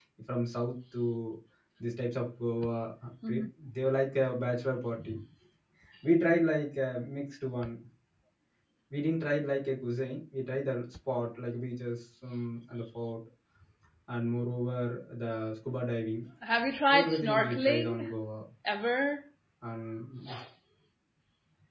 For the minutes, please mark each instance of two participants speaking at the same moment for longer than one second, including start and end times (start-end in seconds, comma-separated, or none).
16.9-18.1